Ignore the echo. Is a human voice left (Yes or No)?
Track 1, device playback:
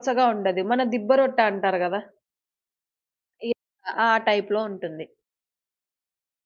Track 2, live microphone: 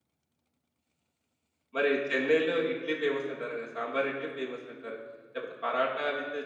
Yes